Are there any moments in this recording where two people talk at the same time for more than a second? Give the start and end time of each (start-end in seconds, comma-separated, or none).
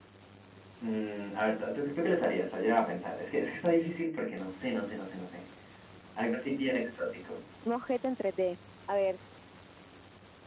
none